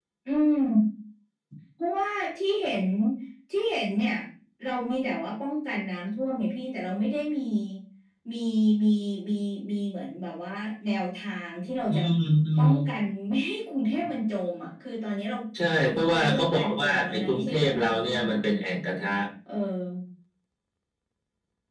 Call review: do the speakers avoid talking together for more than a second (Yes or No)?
No